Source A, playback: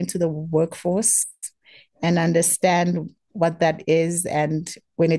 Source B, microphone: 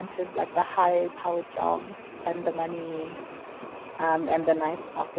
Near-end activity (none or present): present